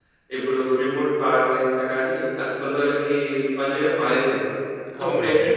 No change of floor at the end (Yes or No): Yes